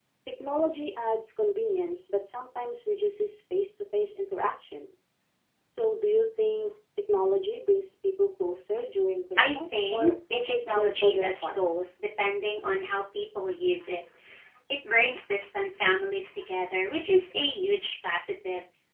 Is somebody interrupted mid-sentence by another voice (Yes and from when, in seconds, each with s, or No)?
Yes, from 9.4 s